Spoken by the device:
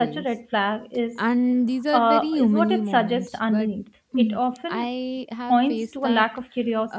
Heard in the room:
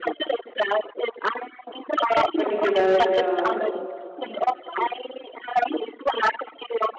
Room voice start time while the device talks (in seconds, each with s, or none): 2.3 s